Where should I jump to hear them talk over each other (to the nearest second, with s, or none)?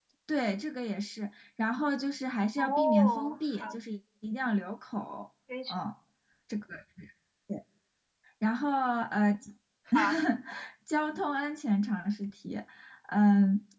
3 s